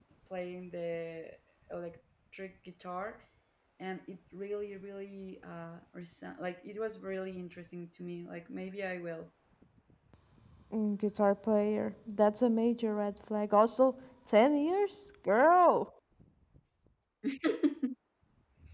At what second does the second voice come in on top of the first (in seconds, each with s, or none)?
none